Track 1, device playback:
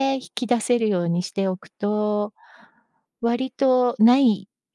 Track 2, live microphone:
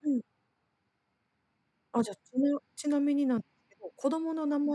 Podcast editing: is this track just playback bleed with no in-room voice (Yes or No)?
No